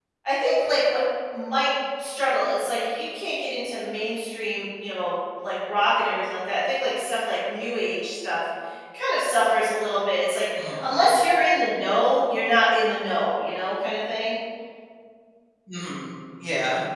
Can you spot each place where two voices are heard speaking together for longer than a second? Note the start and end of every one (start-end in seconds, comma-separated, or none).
none